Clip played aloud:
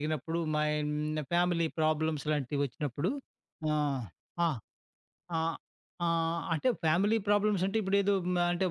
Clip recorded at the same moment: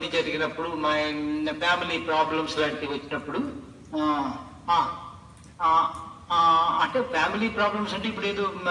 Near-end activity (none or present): none